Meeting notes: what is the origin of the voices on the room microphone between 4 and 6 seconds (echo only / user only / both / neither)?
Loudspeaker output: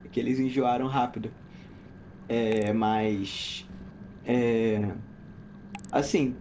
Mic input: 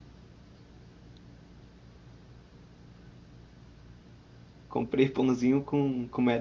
user only